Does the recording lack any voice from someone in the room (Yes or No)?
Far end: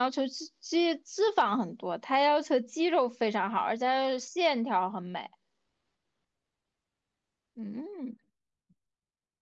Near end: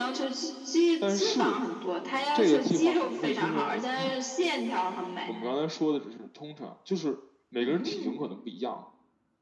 No